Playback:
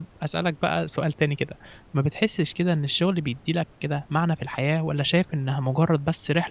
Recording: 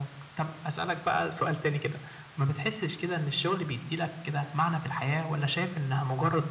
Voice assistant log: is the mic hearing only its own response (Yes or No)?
Yes